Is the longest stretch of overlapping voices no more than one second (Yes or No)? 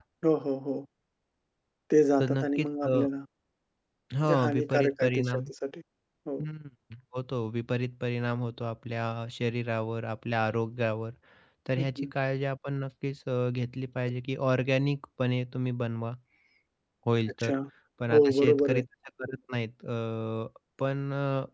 No